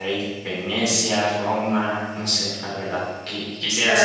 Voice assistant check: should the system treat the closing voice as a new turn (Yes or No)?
No